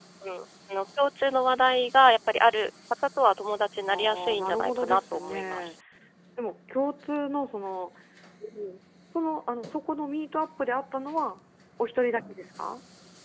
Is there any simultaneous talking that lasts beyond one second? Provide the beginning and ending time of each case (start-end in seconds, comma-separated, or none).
3.9-5.7